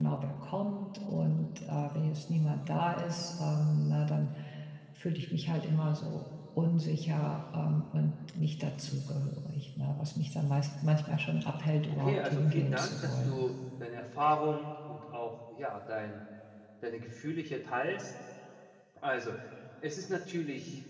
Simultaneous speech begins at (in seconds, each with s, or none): 11.9 s